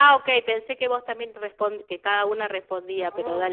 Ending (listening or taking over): taking over